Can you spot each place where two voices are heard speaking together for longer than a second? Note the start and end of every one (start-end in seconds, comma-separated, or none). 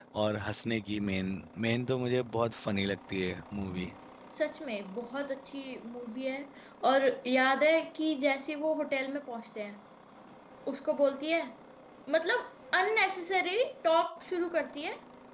none